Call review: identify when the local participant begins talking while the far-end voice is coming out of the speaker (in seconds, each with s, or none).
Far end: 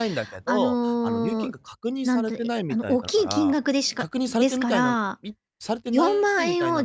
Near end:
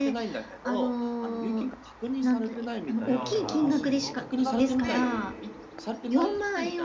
3.0 s